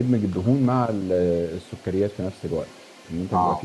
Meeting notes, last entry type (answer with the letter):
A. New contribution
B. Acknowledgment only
B